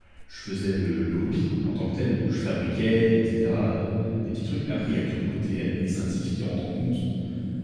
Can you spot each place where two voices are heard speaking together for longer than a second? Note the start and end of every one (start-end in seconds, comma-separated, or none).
none